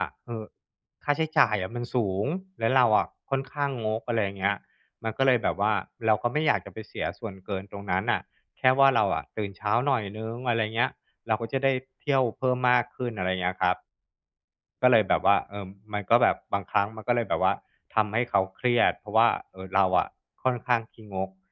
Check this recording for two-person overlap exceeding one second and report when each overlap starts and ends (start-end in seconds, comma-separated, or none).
none